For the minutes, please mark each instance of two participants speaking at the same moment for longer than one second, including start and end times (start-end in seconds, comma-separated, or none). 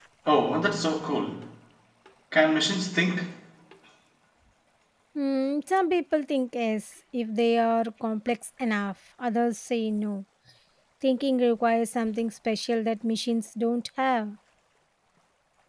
none